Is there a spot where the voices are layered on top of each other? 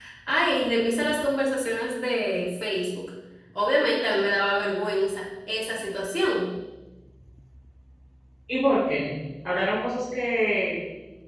No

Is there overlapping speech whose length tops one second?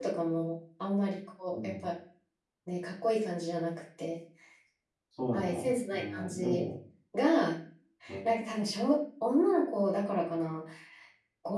Yes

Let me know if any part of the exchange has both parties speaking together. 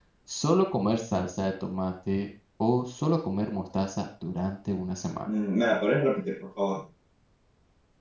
No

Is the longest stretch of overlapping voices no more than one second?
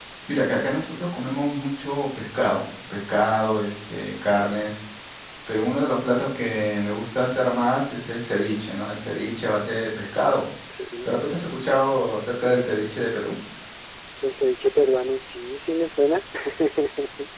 Yes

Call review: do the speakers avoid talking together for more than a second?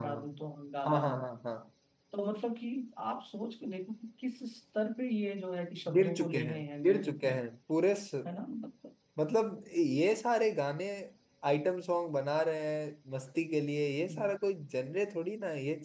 No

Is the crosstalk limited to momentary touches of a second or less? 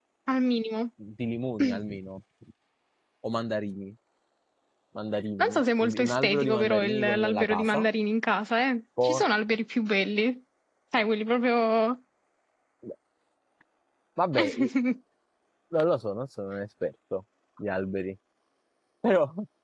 No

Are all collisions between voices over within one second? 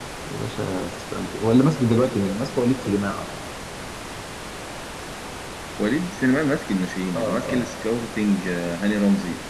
Yes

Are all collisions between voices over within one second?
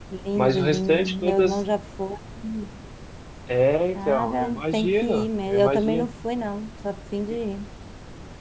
No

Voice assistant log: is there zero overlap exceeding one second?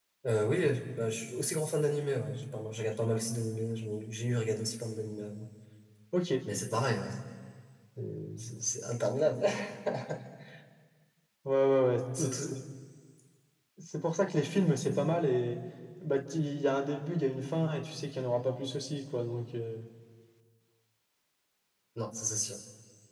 Yes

